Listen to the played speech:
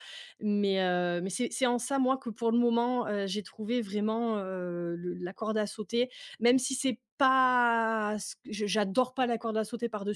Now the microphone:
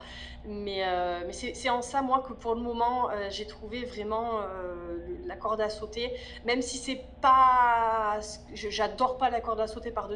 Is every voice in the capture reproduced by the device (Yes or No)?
Yes